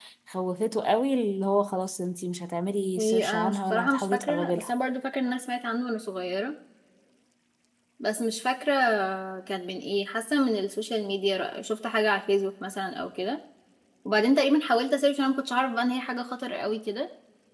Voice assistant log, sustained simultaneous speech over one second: present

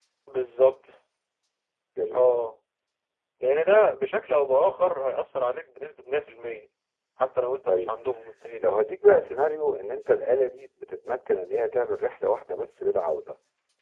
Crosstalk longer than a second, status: none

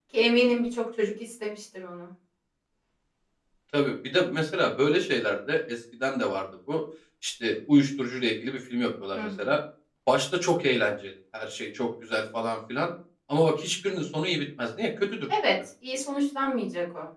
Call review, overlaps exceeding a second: none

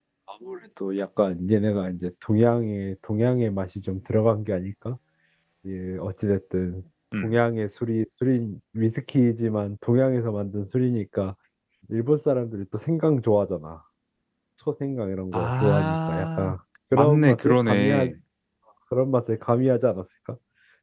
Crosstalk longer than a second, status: present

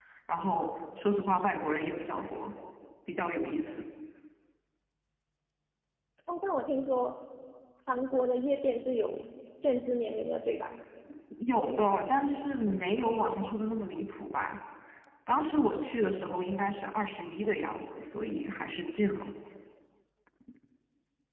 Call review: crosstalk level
none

